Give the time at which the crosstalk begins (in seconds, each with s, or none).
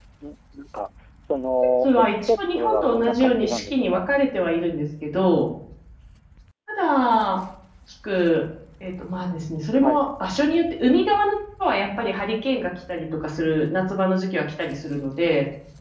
1.8 s